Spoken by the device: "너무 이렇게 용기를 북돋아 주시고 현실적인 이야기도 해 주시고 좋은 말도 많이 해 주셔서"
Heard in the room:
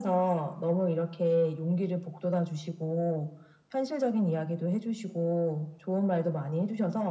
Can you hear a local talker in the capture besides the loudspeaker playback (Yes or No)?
No